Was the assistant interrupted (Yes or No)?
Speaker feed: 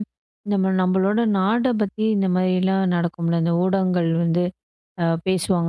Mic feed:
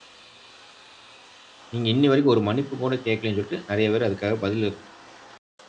Yes